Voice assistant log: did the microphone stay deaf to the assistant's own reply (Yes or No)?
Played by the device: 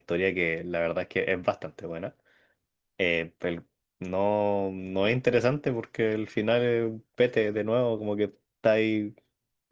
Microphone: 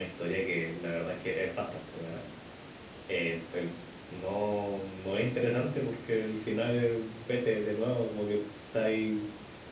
No